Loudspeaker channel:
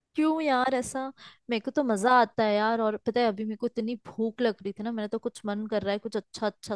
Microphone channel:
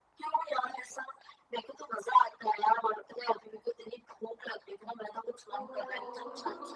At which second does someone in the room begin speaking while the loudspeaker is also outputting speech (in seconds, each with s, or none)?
5.5 s